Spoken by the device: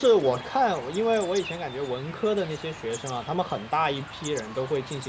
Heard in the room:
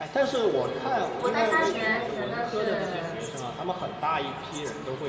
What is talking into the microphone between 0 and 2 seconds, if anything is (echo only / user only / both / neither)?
both